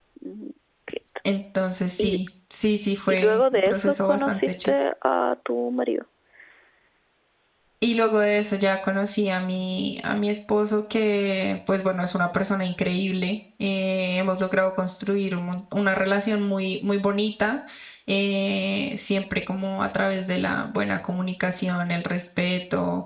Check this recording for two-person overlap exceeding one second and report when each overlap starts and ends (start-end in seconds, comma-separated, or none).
3.1-4.7